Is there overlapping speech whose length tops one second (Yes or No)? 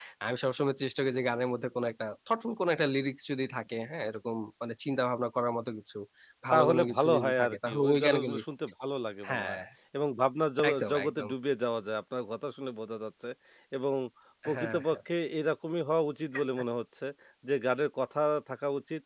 Yes